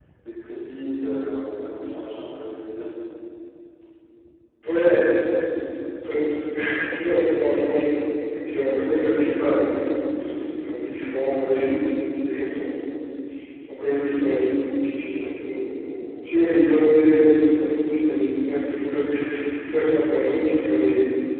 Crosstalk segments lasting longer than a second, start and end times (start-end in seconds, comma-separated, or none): none